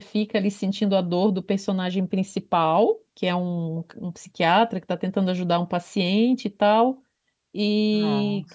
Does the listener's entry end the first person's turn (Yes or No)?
No